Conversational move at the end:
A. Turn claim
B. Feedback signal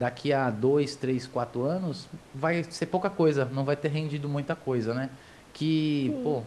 B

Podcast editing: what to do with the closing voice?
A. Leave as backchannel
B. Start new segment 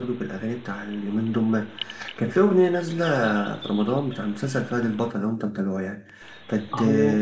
A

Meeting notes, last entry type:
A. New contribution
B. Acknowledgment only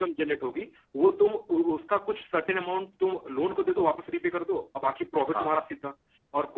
B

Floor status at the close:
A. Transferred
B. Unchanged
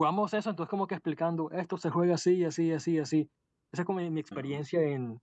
B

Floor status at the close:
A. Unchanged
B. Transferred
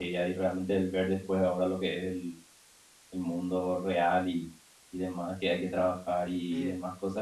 A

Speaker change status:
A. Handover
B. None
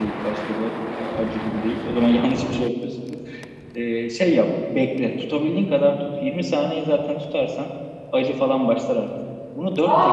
A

